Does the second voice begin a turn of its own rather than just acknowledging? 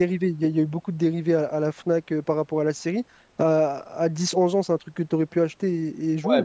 Yes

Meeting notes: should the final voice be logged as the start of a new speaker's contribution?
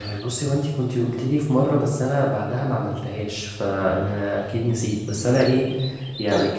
No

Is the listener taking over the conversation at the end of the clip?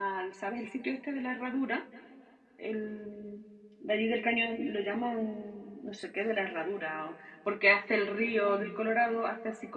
No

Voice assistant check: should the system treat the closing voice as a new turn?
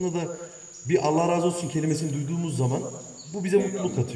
Yes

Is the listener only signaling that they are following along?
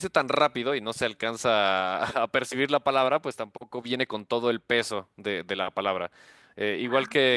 Yes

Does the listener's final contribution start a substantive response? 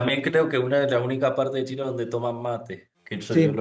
Yes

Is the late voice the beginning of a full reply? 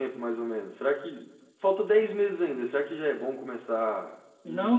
Yes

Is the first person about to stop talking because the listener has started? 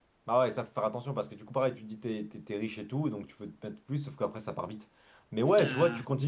No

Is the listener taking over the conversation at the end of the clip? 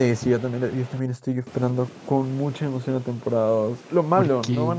No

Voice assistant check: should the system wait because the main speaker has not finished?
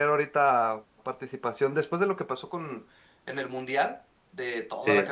Yes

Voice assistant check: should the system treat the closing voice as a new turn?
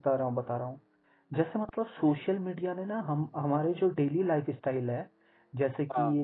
No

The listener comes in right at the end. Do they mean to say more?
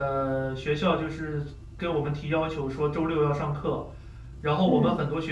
No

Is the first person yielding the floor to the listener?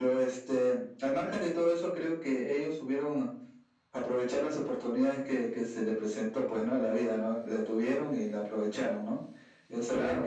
No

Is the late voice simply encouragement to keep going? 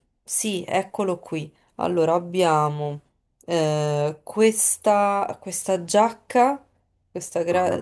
Yes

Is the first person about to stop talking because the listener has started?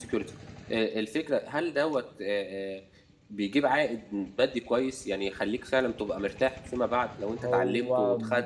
No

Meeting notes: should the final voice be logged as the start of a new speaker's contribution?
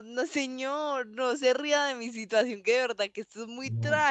Yes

